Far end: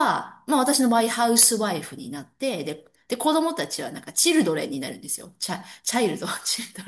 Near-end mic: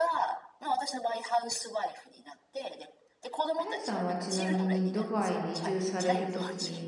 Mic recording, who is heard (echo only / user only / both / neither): both